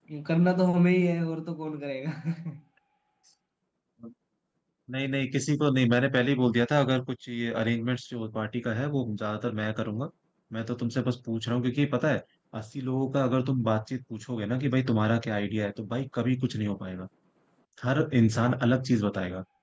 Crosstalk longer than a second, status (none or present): none